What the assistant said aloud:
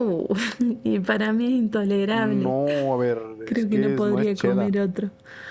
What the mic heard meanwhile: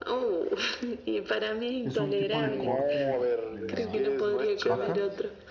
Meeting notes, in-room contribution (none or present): present